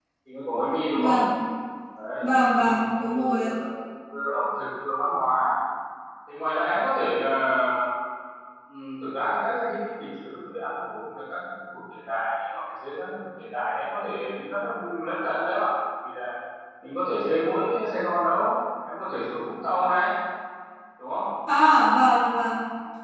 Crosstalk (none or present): present